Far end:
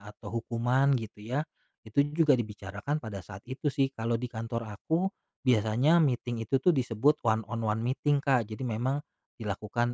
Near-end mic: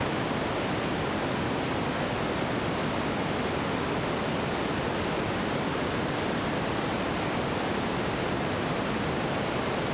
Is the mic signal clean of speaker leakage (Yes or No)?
Yes